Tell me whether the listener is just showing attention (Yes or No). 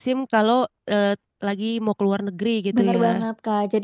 No